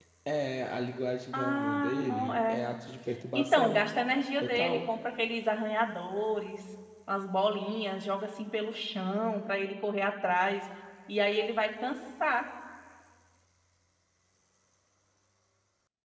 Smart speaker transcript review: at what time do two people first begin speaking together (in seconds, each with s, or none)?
1.3 s